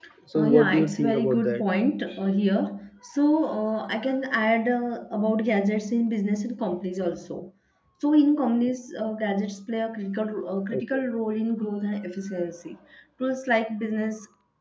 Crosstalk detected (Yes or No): Yes